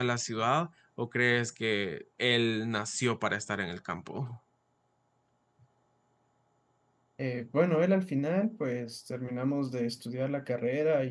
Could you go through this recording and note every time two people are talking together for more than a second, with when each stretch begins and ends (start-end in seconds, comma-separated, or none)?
none